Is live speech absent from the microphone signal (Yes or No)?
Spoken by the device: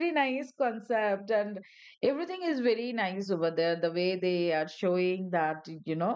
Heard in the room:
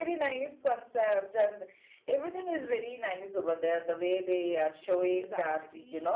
No